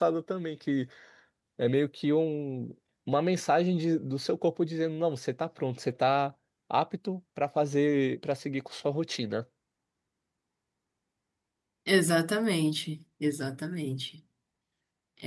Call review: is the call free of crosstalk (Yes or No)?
Yes